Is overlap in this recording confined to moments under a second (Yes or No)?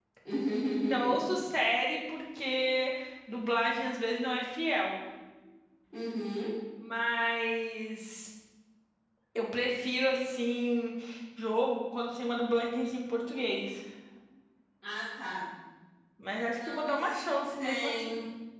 No